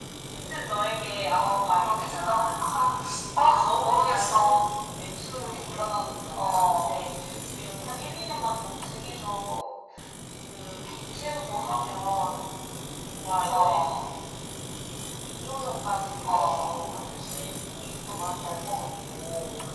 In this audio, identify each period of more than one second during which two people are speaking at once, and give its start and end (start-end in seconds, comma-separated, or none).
1.3-2.7, 3.4-4.6